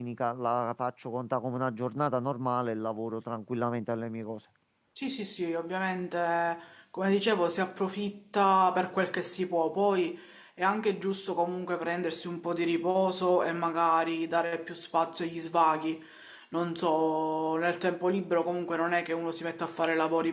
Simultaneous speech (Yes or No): No